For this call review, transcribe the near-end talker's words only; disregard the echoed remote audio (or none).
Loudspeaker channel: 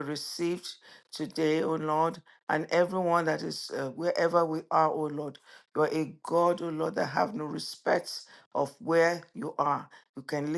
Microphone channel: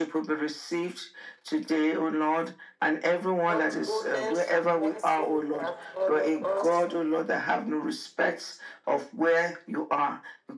God's goodness and mercy that follow us